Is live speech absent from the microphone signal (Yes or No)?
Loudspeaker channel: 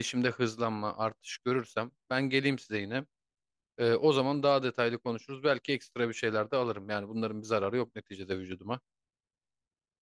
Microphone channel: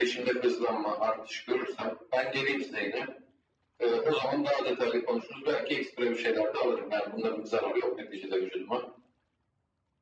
Yes